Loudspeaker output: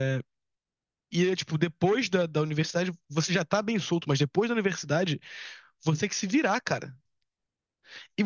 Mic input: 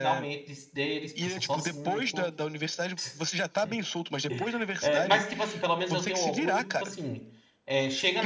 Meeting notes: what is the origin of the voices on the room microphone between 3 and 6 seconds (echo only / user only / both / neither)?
both